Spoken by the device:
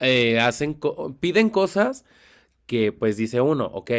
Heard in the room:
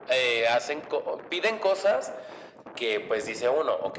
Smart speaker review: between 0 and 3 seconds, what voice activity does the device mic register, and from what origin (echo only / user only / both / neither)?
echo only